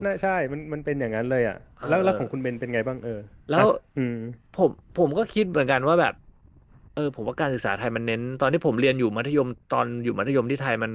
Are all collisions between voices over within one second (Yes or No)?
Yes